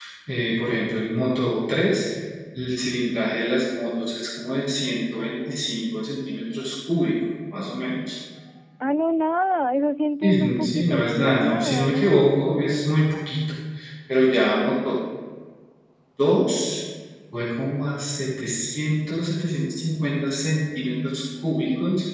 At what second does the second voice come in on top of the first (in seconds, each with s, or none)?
10.2 s